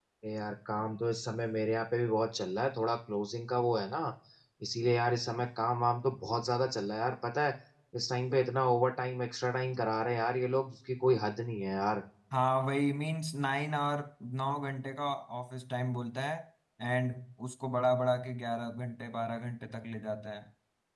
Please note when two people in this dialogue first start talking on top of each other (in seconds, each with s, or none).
none